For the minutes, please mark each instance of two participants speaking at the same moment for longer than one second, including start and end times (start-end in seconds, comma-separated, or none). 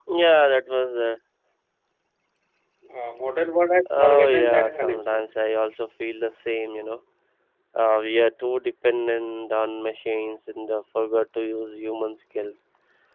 4.0-5.4